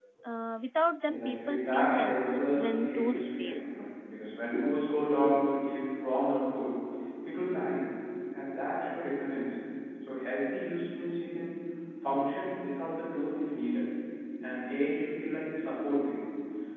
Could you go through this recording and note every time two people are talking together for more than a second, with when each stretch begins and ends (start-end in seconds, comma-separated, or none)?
1.1-3.5